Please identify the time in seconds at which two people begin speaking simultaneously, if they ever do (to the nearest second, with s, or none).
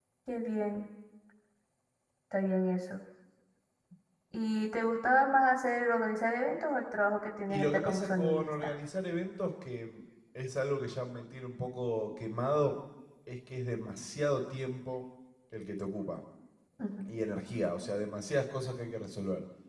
7 s